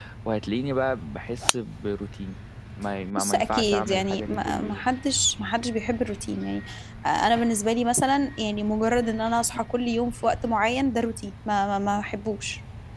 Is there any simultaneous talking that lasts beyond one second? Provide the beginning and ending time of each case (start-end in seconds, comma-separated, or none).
3.2-4.8